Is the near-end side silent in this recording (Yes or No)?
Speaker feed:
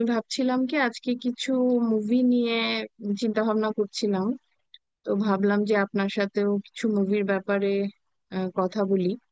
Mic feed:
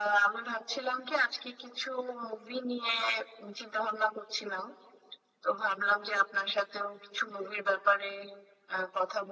Yes